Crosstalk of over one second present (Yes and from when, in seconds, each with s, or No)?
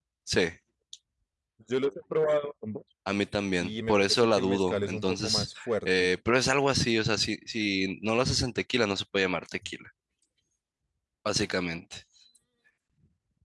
Yes, from 3.6 s